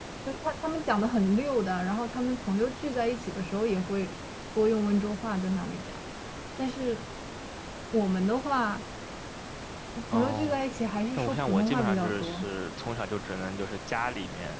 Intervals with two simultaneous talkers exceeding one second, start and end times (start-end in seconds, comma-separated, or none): 11.2-12.4